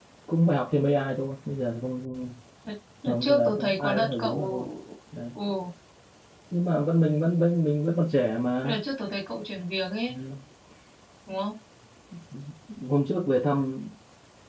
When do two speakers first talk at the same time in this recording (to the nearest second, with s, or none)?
3 s